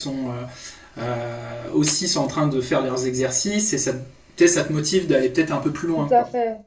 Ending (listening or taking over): taking over